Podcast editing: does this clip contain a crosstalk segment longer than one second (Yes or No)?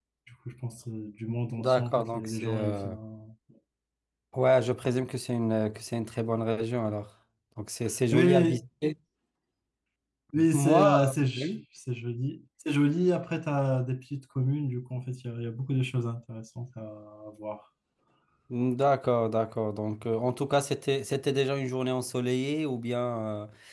Yes